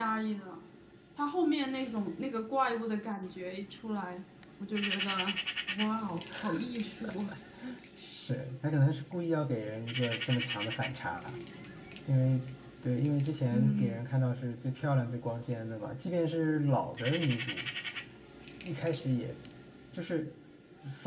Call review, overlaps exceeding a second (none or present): none